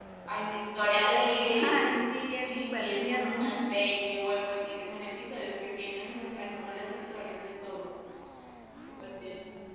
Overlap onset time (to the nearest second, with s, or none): 2 s